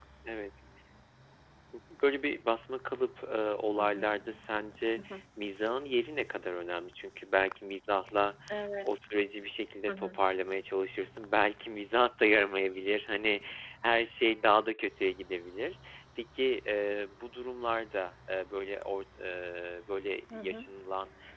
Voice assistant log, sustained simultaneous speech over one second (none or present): none